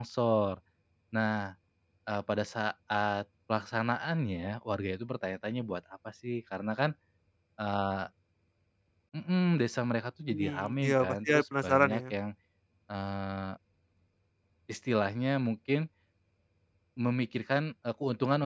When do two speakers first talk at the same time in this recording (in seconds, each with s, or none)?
10.3 s